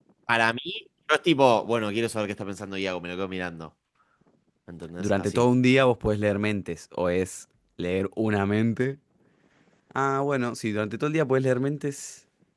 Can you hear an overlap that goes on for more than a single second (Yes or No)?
No